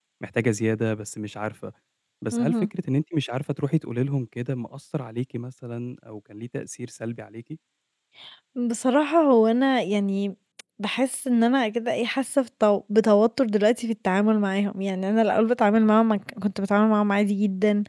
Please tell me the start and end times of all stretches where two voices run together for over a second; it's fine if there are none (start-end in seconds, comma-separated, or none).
none